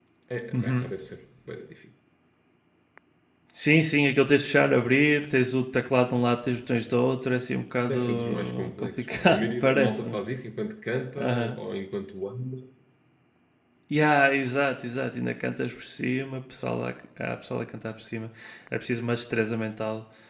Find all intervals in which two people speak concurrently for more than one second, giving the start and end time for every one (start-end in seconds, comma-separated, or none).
7.8-10.2